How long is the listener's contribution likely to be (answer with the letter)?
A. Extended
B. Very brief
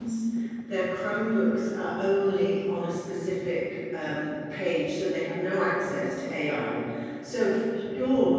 B